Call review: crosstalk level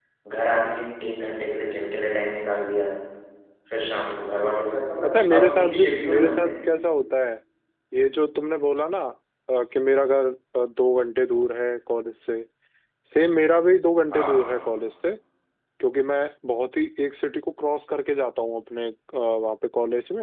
present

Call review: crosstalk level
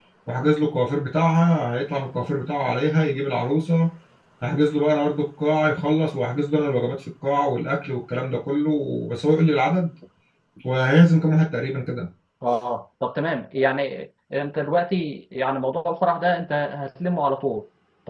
none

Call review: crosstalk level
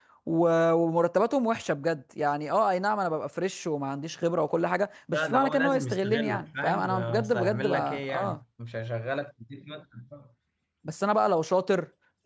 present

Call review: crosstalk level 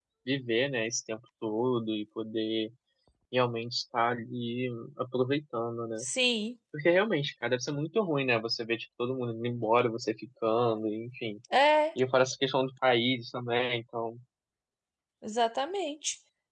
none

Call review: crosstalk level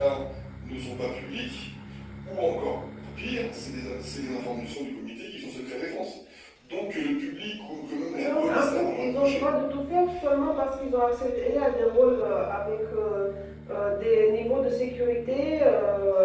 present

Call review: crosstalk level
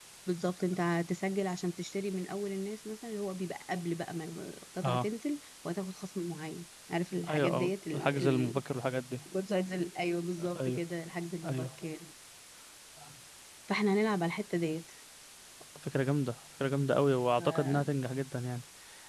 present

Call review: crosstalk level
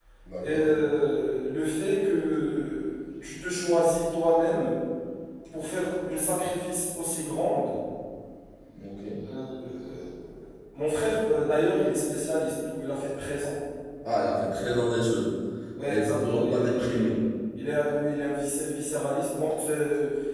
present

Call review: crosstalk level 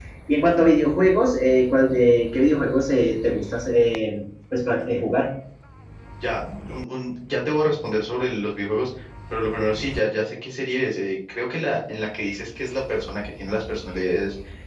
none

